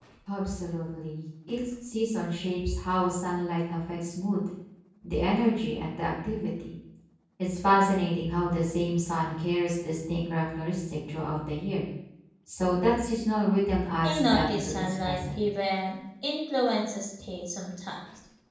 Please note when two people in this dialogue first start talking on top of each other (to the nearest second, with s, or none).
14 s